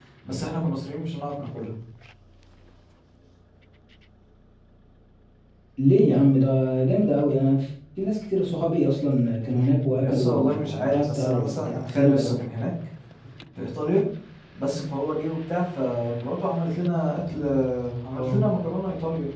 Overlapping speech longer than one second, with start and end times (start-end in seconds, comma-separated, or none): 9.9-12.3